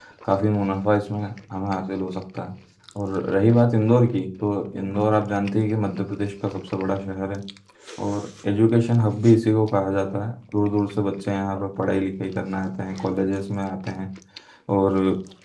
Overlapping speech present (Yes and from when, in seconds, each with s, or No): No